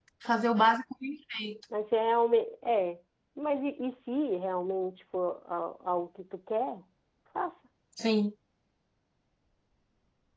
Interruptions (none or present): none